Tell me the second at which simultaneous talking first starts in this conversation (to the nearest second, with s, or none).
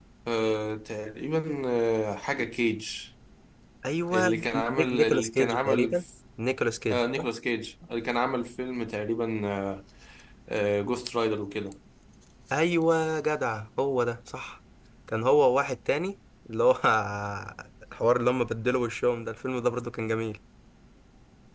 4 s